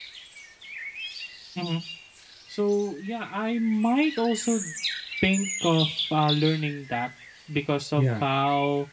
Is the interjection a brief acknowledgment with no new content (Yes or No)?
Yes